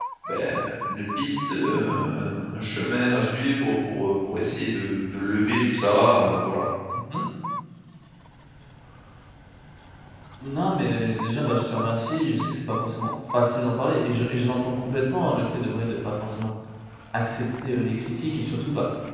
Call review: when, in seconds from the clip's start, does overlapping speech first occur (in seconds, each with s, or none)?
none